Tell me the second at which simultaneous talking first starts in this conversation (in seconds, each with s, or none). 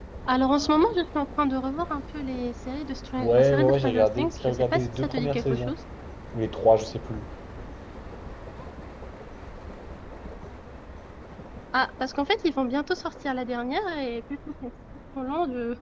3.2 s